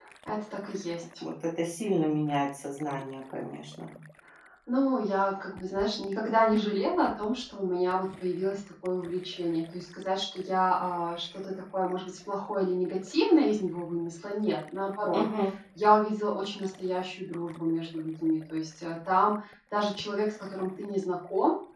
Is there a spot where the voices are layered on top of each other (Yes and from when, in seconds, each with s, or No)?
No